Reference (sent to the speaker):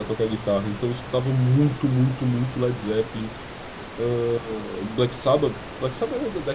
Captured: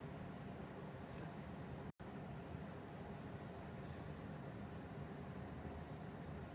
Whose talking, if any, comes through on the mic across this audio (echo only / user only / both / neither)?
neither